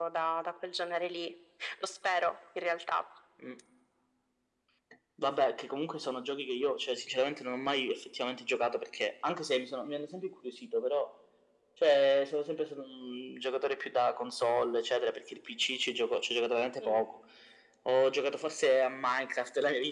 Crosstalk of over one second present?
No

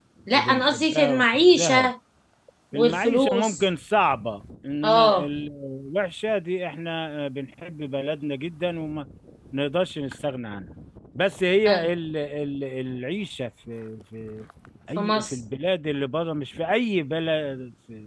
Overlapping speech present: Yes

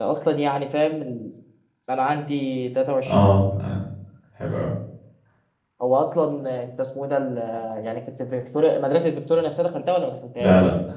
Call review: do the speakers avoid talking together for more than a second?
Yes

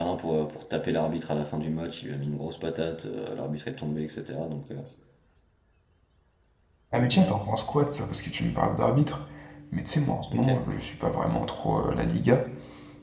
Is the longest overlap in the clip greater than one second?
No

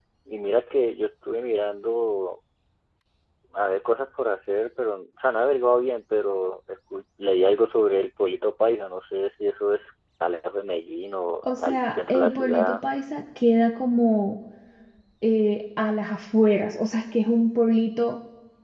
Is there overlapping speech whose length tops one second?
Yes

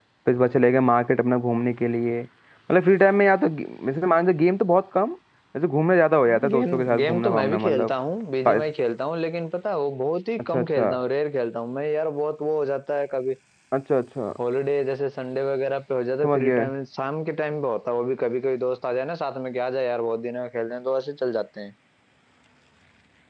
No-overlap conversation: No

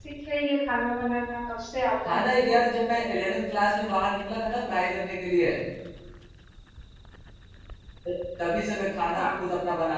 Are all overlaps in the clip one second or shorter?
Yes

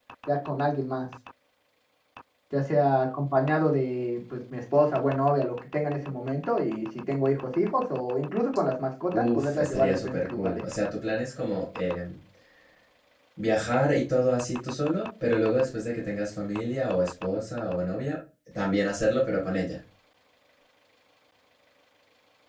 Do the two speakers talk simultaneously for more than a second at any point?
Yes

